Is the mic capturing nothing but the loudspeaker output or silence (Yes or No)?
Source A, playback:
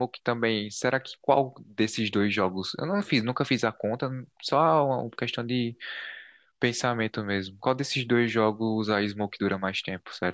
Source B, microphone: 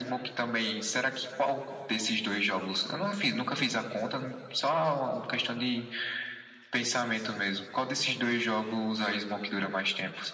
Yes